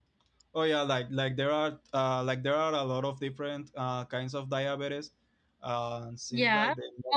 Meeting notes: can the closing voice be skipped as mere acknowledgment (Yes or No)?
No